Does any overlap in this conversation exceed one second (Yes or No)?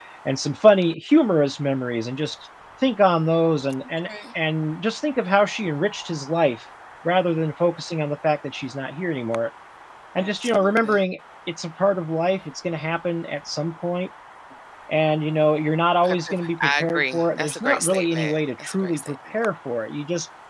Yes